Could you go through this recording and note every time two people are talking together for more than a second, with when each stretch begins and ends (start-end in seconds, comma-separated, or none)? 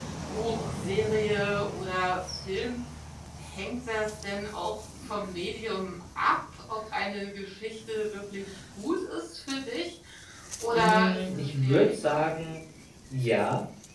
10.7-12.3